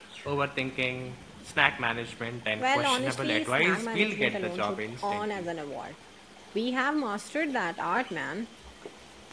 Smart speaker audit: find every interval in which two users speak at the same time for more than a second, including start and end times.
2.6-5.5

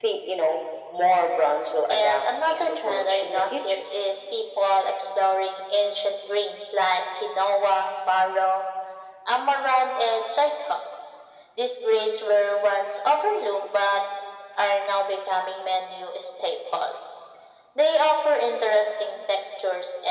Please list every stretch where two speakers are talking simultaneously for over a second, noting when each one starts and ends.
1.9-3.9

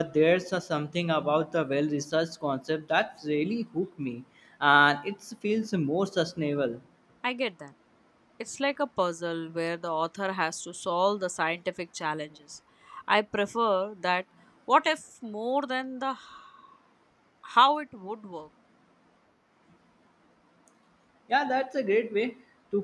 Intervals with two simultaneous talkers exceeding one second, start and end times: none

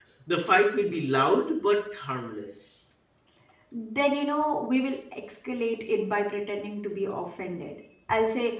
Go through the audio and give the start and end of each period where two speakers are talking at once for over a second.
none

